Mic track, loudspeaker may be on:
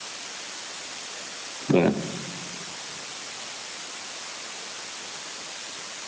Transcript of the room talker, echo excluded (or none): சொல்லுங்க.